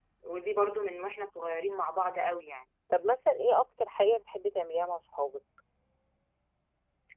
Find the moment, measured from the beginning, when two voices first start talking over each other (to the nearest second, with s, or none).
none